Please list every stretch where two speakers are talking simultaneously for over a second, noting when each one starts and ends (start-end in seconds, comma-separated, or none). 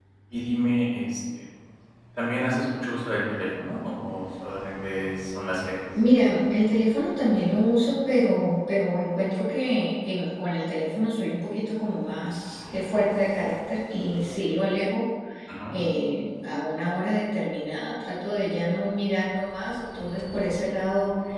none